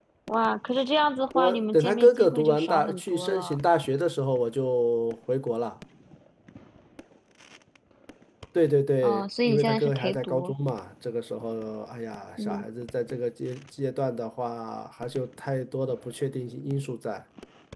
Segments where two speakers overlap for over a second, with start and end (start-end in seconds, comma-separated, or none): 1.3-3.6, 9.0-10.5